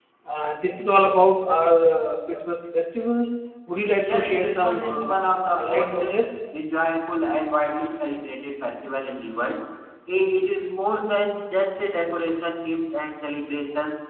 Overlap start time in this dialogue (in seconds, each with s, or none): 4.0 s